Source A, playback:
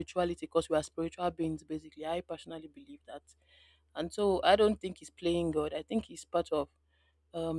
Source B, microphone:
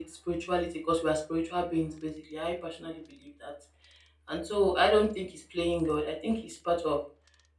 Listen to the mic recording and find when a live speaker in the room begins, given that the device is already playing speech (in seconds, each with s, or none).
none